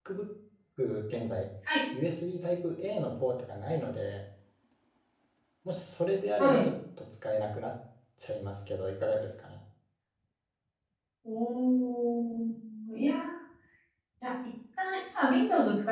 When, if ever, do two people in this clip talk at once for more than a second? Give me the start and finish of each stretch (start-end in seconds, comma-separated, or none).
none